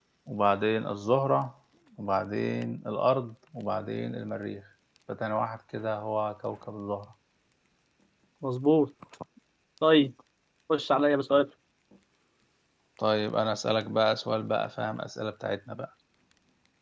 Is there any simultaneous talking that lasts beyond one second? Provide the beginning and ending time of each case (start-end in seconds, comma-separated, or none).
none